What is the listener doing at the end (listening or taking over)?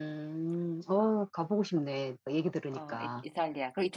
taking over